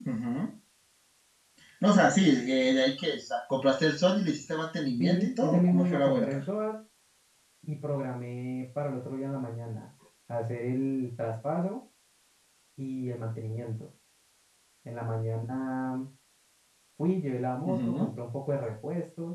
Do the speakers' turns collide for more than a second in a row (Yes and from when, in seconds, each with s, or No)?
Yes, from 5.0 s